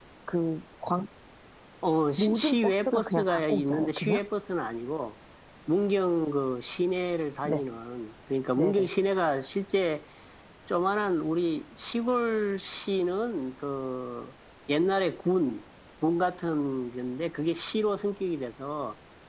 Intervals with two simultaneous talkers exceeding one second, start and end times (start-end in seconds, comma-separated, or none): 2.2-4.2